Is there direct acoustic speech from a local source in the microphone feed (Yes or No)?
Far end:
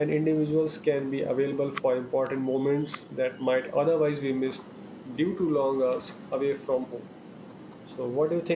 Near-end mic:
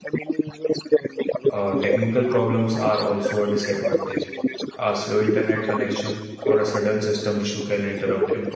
Yes